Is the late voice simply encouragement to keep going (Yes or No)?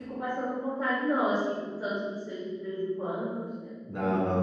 No